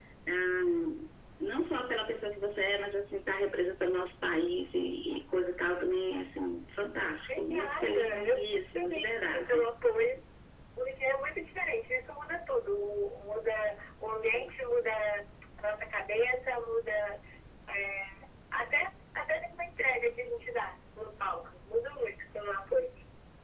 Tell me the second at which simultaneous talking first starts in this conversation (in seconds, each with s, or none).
7.0 s